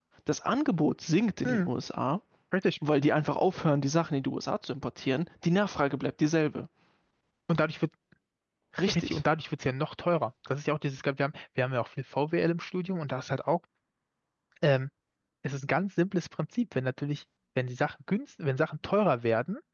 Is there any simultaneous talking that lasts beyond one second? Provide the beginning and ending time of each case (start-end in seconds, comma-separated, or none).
none